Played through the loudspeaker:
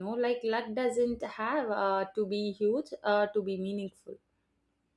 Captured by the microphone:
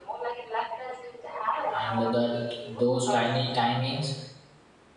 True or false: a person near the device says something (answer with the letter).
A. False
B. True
B